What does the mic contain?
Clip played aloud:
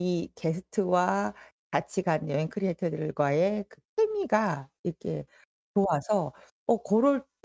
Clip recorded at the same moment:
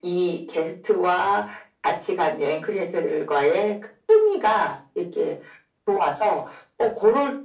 echo only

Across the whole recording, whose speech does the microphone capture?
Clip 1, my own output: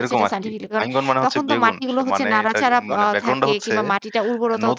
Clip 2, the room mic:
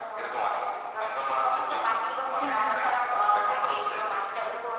both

